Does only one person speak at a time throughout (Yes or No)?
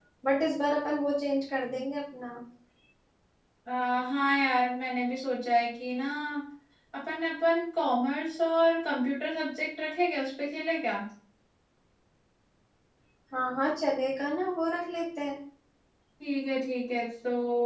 Yes